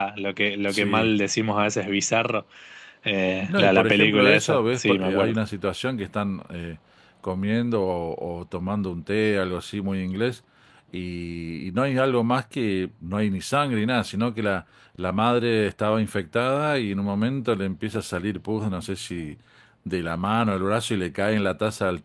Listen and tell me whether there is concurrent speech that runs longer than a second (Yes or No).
Yes